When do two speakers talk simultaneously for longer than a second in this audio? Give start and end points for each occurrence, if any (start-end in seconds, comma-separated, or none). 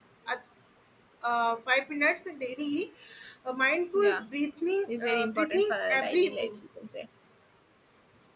5.0-6.6